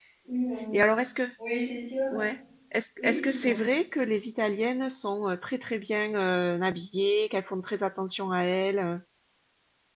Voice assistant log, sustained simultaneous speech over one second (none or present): none